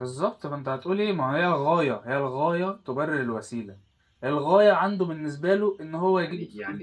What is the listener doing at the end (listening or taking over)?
taking over